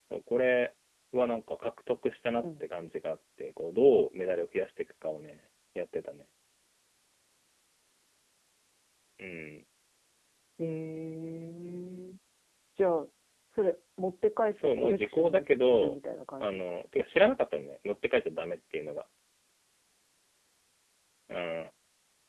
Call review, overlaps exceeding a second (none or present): present